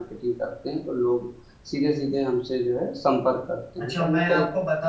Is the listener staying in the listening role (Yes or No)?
No